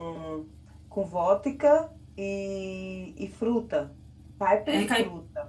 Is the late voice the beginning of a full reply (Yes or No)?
Yes